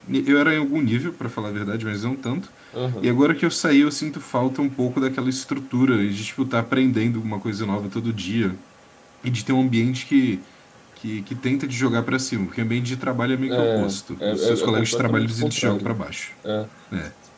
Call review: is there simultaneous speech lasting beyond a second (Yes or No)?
Yes